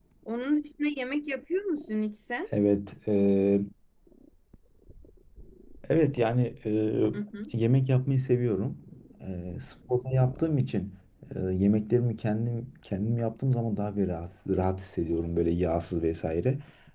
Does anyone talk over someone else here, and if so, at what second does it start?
none

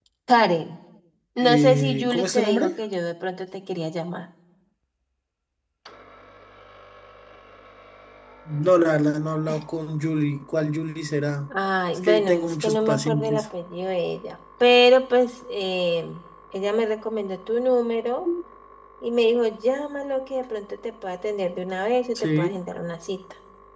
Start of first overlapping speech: 1.4 s

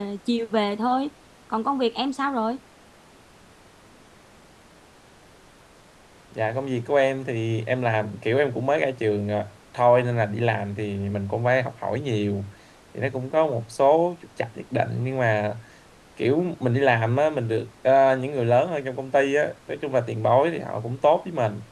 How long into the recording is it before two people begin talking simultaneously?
none

